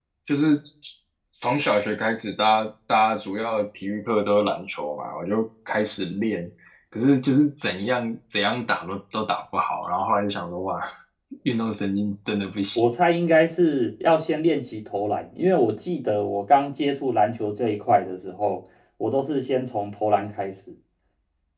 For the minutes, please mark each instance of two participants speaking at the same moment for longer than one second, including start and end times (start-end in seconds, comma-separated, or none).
none